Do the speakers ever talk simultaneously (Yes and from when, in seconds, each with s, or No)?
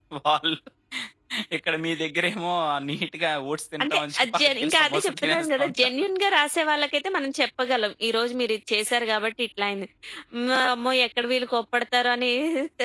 Yes, from 3.8 s